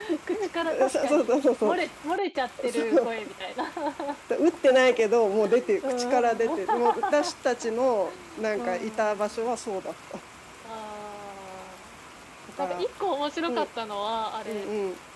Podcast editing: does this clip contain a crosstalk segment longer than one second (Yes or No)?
Yes